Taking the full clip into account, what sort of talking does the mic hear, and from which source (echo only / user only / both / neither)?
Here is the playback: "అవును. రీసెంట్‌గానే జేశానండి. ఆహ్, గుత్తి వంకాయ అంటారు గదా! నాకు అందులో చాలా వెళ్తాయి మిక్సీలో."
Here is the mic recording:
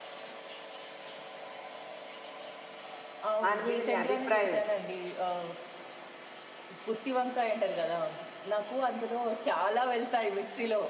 both